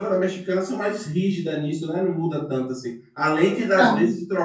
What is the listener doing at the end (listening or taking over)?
listening